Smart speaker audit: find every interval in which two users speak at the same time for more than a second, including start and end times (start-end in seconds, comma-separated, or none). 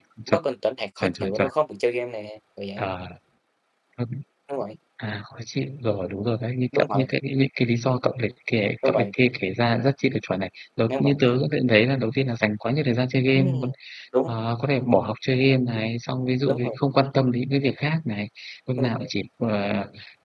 none